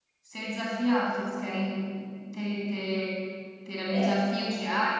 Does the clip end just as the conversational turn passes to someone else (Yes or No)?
No